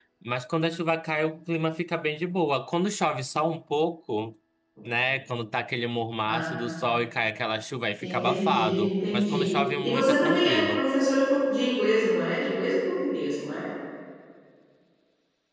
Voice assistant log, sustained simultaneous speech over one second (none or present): present